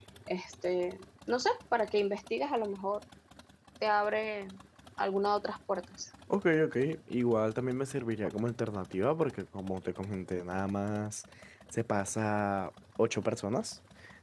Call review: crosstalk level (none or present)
none